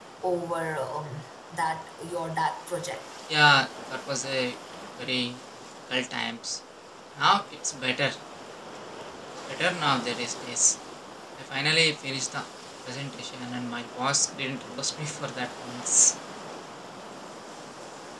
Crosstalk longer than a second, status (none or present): none